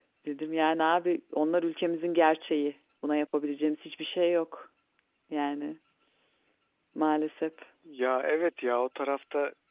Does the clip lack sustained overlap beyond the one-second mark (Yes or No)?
Yes